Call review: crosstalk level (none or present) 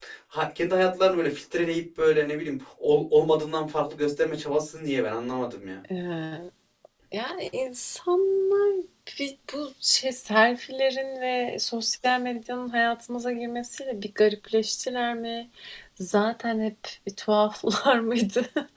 none